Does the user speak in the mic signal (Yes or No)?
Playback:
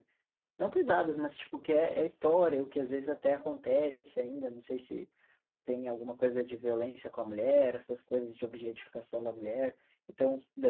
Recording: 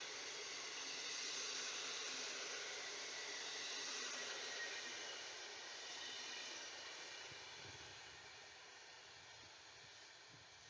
No